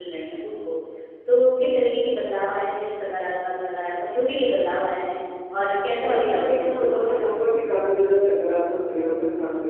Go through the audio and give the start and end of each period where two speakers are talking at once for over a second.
6.0-7.3

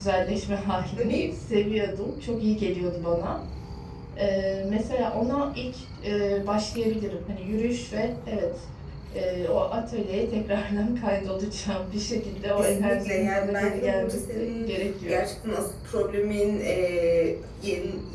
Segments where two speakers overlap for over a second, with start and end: 12.6-15.2

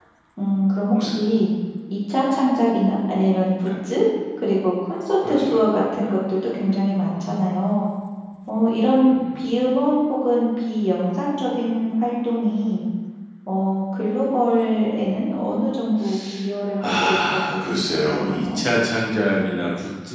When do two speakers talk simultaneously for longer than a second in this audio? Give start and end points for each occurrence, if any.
16.8-18.6

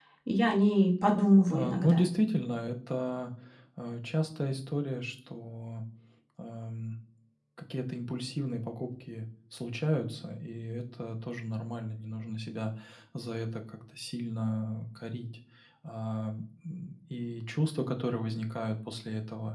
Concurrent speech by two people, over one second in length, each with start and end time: none

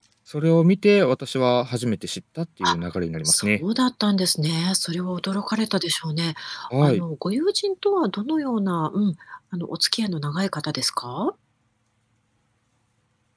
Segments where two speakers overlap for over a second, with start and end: none

